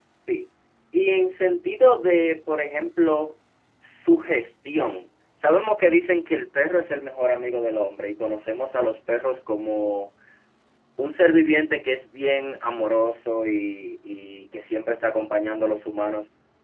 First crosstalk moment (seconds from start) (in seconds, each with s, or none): none